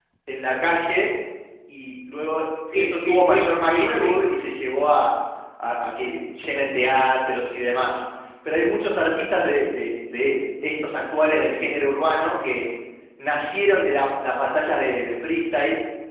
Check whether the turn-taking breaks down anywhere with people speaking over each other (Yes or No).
Yes